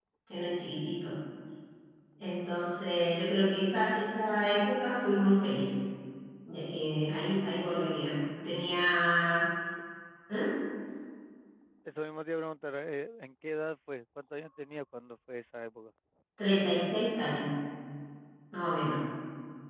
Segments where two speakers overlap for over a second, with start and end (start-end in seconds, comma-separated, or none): none